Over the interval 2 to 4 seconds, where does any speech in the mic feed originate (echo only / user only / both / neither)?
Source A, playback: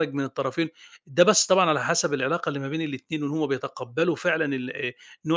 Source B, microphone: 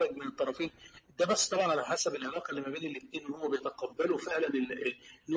echo only